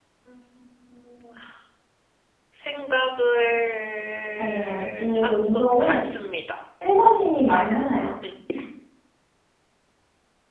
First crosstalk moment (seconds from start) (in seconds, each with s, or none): 4.4 s